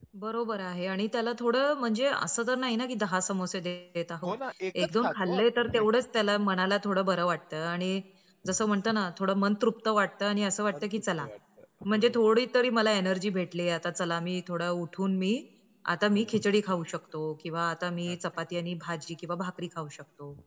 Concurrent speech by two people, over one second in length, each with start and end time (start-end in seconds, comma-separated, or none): 4.8-6.0